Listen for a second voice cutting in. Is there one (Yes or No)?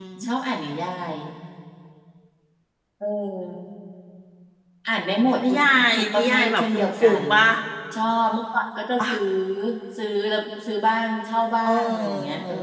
Yes